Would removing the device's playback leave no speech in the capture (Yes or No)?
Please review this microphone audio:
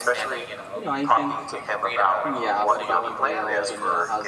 No